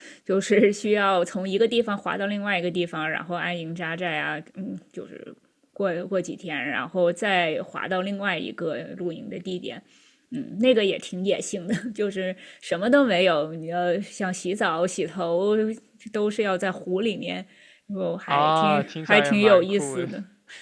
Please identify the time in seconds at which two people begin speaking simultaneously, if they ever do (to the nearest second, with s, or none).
18 s